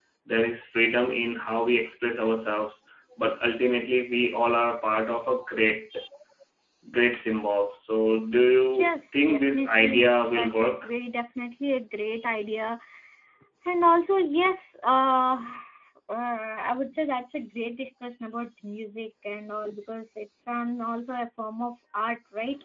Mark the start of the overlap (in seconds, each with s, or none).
8.7 s